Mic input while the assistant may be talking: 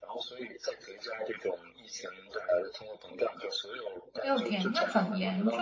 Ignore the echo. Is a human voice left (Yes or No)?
Yes